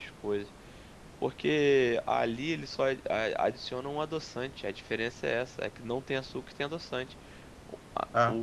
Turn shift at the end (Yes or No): No